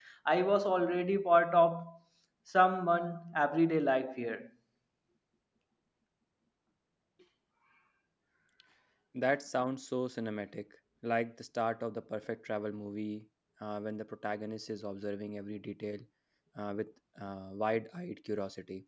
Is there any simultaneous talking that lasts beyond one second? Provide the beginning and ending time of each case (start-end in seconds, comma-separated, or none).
none